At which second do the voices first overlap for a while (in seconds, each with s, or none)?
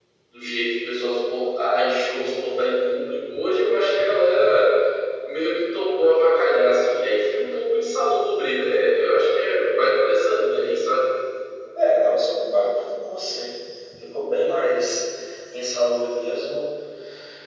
none